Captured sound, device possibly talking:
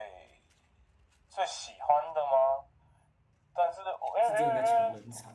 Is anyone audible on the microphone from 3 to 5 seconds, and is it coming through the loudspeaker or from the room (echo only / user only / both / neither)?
both